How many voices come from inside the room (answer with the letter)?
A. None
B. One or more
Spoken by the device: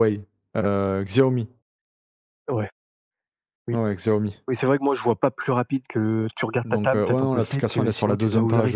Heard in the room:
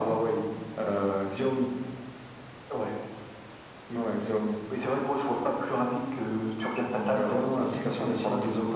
A